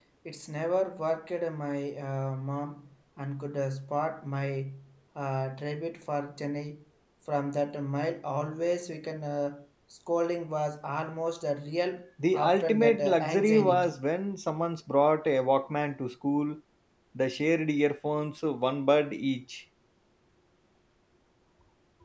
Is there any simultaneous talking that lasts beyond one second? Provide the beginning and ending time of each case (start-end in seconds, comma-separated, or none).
12.3-13.9